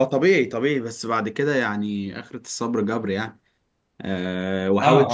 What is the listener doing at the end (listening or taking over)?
listening